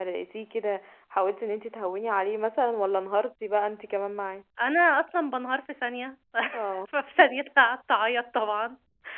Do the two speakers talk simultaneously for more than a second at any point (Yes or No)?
No